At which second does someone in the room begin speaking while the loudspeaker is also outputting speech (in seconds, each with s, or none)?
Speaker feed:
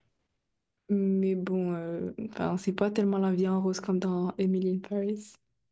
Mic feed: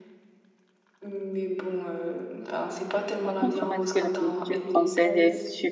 3.2 s